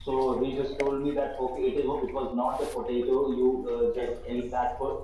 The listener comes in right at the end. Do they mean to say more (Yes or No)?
No